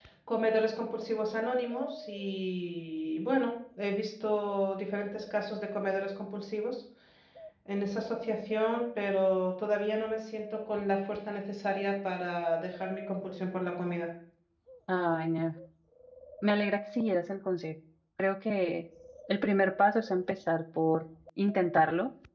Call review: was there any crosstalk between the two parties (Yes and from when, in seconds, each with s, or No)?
No